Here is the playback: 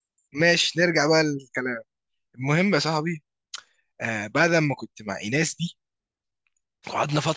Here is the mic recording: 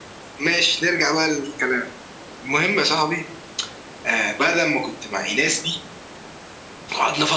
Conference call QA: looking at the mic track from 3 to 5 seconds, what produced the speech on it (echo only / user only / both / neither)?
echo only